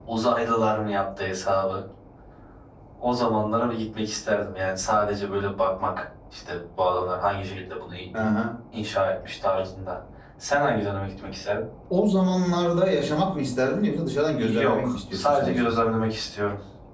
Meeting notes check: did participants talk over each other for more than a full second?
Yes, from 14.4 s

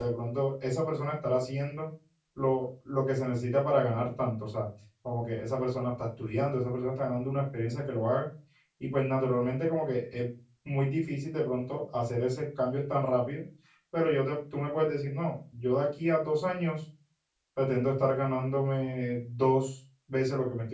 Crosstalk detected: No

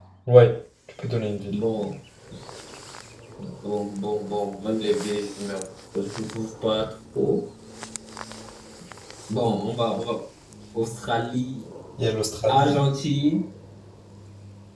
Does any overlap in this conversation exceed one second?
No

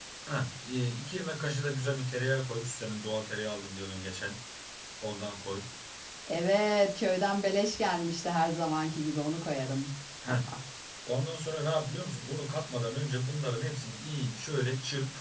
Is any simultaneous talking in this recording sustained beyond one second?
No

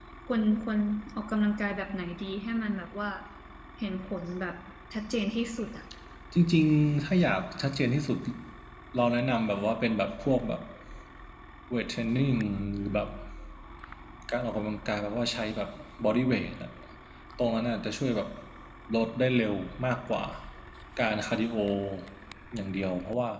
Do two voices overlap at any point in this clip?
No

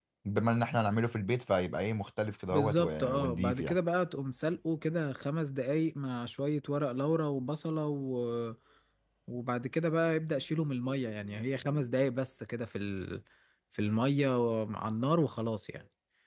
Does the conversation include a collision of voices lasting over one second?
Yes, from 2.5 s

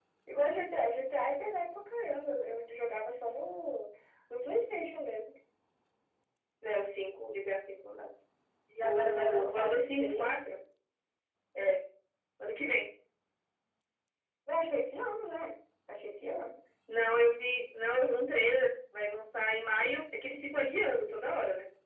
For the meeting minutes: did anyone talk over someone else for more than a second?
Yes, from 8.8 s

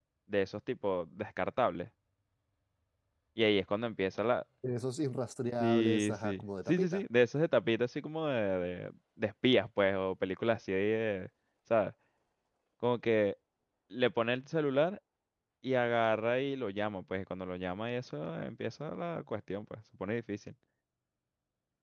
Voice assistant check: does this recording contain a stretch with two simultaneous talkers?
Yes, from 5.6 s

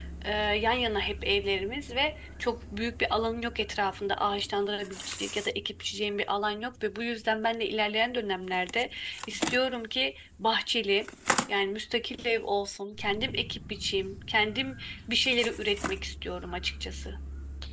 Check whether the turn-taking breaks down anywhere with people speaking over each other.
No

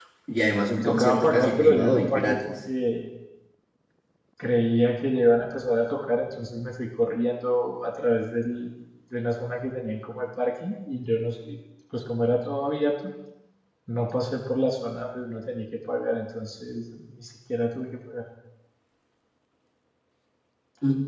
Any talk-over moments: Yes, from 0.8 s

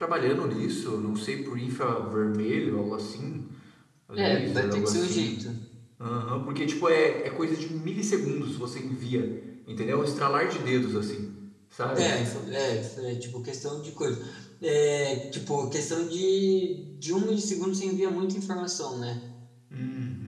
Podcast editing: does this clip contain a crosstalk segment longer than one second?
Yes, from 4.2 s

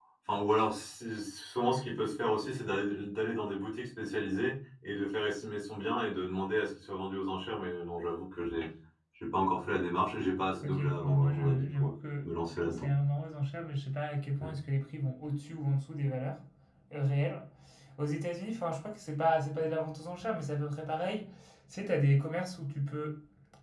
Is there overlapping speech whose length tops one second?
Yes, from 10.6 s

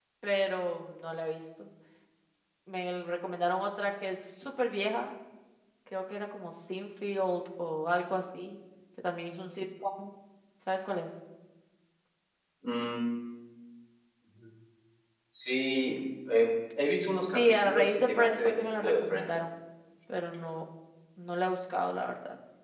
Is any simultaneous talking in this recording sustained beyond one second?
Yes, from 17.3 s

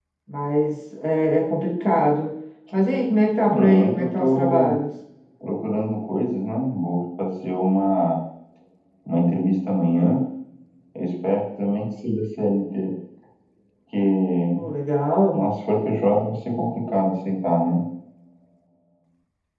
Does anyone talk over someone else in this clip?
Yes, from 3.5 s

